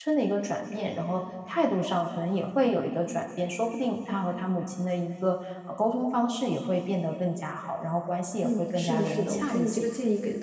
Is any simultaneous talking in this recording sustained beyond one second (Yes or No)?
Yes